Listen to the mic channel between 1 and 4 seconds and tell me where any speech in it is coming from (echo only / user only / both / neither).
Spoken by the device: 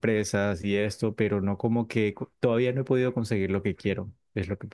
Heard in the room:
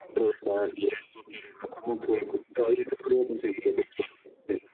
echo only